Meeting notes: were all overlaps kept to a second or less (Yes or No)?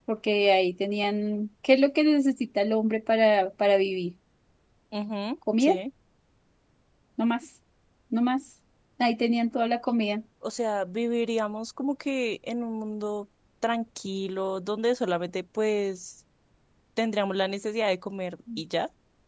Yes